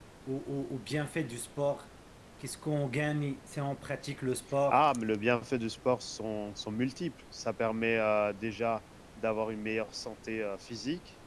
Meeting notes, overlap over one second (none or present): none